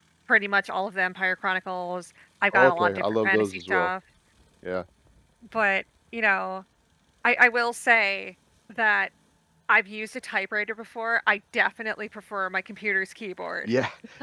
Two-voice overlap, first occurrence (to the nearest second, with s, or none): 3 s